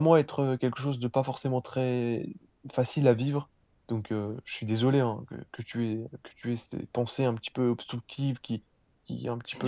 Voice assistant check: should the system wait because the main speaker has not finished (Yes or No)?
Yes